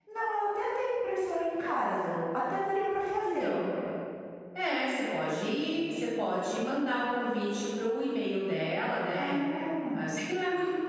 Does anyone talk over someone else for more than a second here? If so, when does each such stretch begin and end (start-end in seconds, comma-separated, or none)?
none